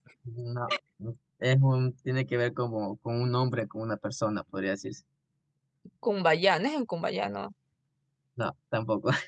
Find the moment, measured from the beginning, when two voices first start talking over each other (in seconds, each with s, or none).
none